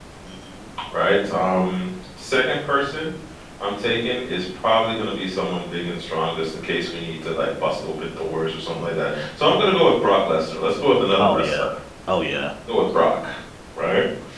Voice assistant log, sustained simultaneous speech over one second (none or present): none